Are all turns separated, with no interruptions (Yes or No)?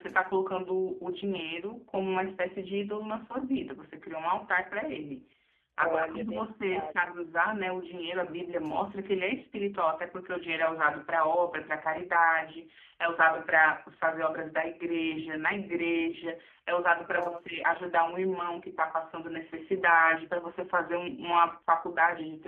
No